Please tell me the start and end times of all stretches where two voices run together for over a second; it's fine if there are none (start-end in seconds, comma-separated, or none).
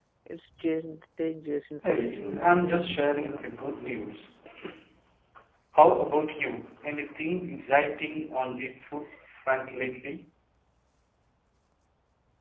1.8-3.5